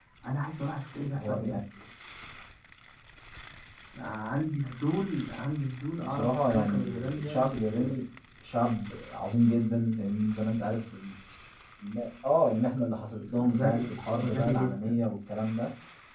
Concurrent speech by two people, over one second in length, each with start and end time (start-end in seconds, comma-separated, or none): 6.0-8.0, 13.4-15.0